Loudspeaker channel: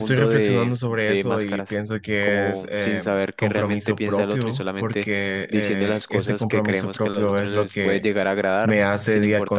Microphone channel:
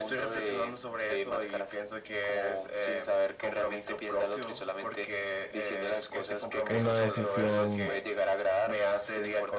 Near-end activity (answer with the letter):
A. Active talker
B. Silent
A